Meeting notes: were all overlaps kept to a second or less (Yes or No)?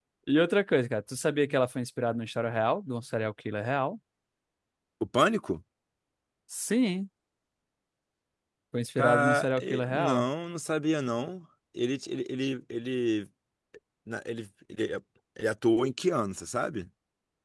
No